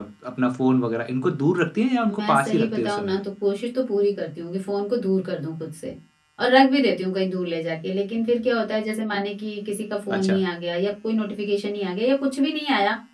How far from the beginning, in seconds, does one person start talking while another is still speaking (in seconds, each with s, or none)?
2.0 s